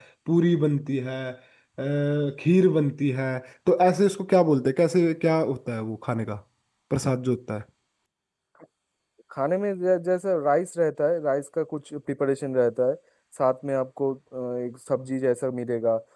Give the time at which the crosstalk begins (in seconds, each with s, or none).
none